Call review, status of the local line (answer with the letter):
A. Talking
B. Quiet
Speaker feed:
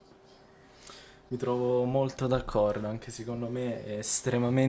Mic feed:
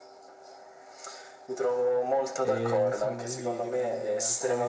A